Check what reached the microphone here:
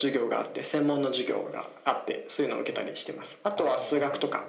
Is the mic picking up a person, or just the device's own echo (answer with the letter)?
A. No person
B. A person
B